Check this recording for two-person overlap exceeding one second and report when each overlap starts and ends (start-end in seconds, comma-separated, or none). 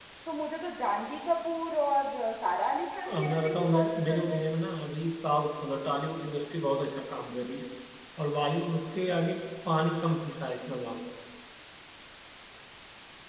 3.1-4.4